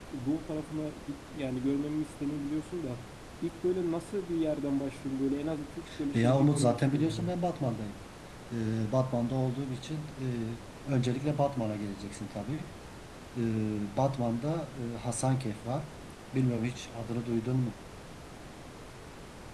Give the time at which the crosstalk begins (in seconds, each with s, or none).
6.1 s